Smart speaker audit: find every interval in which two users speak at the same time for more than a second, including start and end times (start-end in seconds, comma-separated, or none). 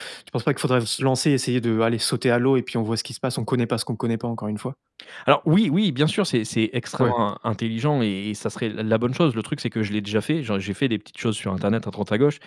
none